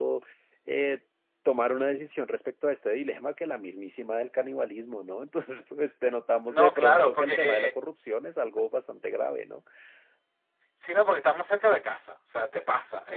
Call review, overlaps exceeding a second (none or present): present